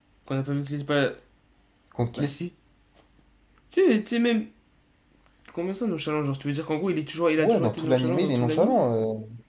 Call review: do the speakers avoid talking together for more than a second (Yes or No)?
No